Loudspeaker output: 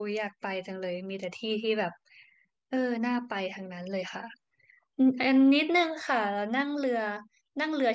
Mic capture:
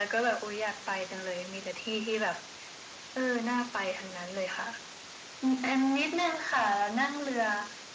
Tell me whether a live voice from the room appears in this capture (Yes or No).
No